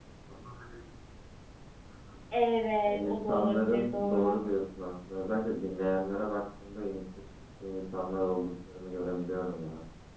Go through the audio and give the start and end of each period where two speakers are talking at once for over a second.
2.8-4.4

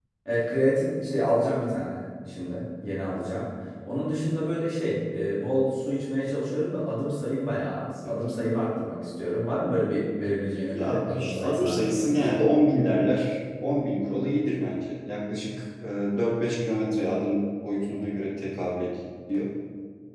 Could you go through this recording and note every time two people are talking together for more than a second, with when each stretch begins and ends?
10.7-12.3

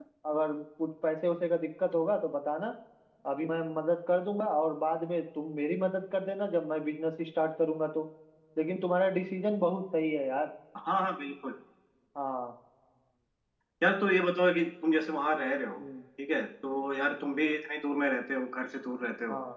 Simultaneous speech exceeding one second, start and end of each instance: none

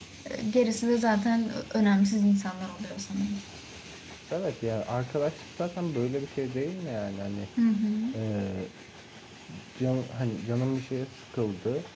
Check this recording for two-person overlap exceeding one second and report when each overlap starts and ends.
none

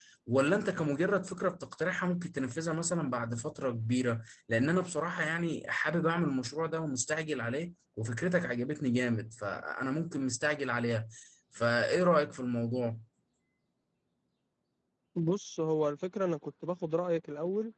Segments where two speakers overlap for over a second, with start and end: none

